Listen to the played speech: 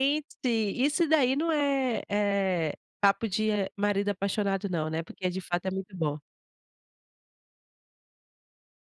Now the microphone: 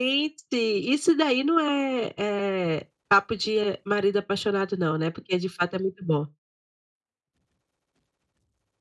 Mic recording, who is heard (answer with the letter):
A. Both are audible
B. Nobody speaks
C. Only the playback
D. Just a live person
C